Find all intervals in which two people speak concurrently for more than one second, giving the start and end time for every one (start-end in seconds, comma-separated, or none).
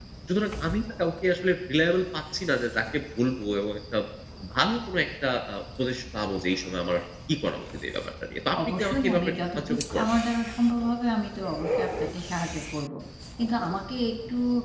8.8-10.1